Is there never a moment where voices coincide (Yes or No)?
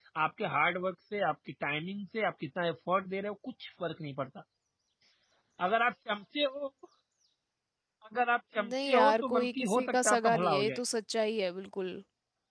No